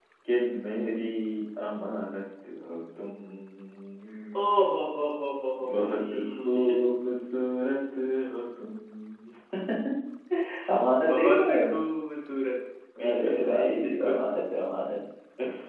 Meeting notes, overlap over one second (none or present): present